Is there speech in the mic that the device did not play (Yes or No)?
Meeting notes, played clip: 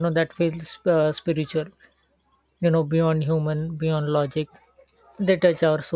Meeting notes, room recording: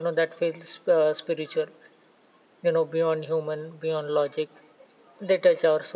No